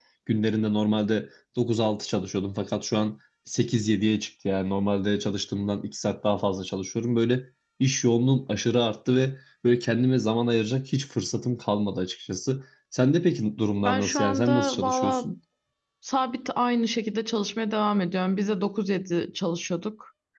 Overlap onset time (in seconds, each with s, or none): 13.8 s